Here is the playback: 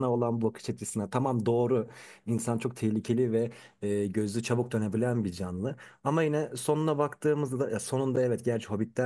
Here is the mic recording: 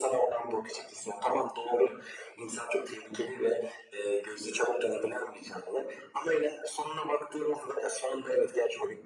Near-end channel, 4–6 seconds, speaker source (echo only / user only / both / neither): echo only